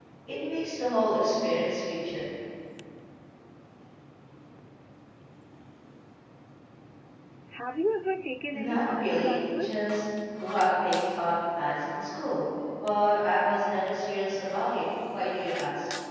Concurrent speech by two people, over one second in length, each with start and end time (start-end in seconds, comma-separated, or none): 8.5-9.8